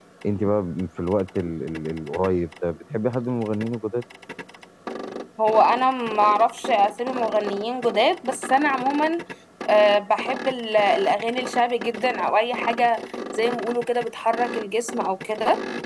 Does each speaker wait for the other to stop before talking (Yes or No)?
Yes